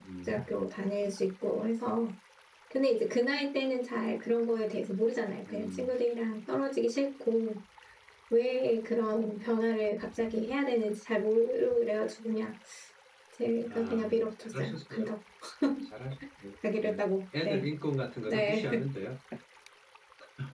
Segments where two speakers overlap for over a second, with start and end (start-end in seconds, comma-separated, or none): 13.7-15.1